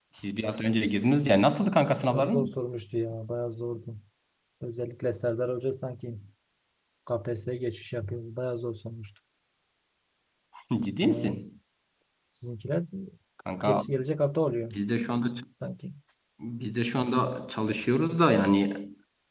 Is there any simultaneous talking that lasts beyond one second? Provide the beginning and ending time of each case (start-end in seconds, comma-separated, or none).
none